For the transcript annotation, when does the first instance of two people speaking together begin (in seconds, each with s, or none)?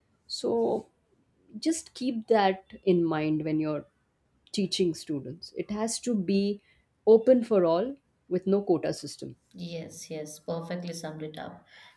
none